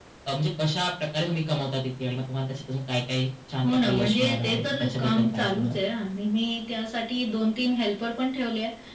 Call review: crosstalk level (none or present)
present